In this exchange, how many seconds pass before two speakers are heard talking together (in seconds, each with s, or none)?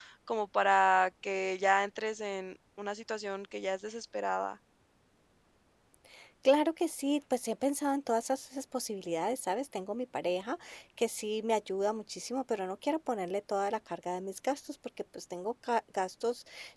none